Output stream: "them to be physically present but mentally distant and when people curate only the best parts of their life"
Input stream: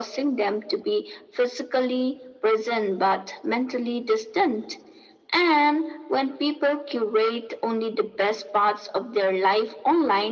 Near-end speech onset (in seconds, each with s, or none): none